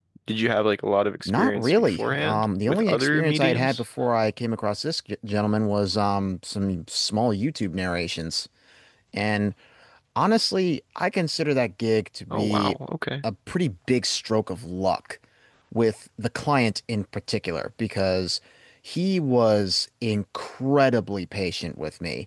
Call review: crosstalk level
present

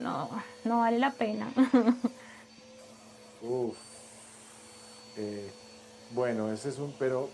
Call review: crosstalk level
none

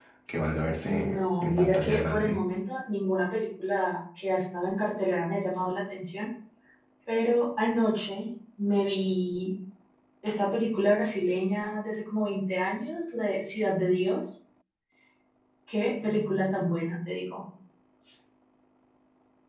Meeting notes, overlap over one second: present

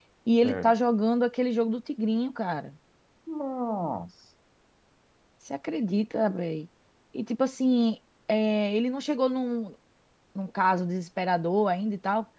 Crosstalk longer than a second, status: none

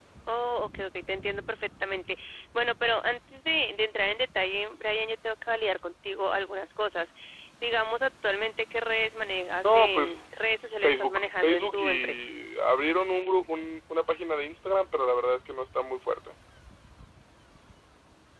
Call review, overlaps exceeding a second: present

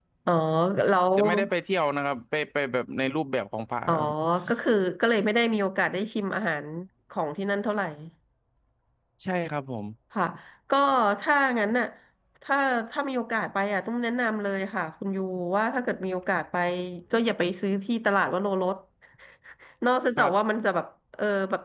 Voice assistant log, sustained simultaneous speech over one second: none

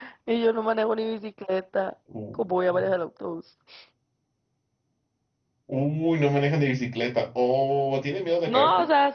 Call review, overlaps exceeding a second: none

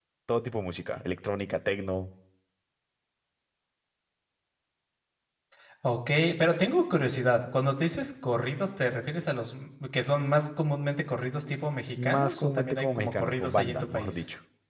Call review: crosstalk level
present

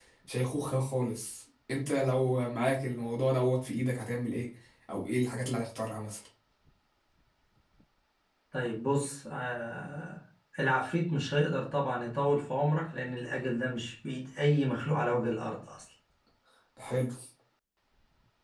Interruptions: none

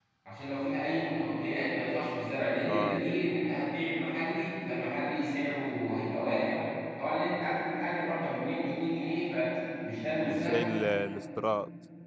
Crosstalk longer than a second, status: none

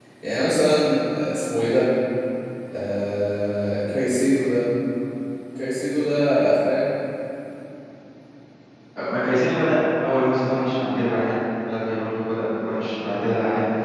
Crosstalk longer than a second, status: none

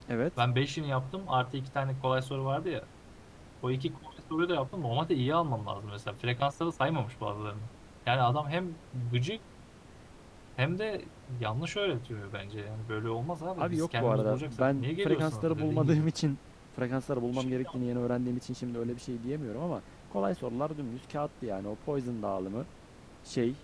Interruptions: present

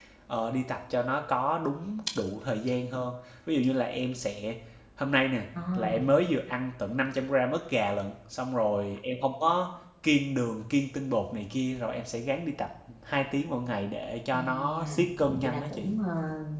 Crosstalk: present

